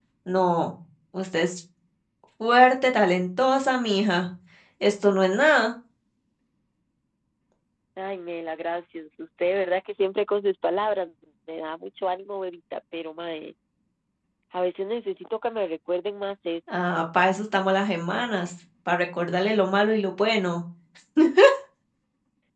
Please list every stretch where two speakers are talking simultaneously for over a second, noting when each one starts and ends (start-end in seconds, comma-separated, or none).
none